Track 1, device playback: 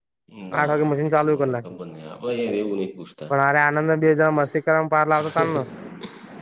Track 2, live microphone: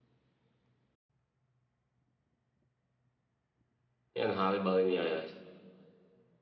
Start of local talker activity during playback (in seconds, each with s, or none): 4.2 s